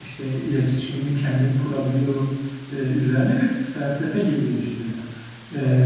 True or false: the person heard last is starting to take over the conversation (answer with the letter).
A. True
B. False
B